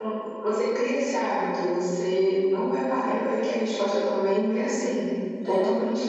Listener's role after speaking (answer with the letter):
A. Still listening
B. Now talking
A